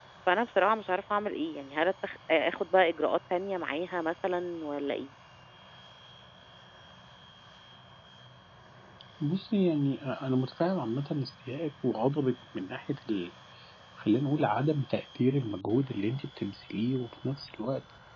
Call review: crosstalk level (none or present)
none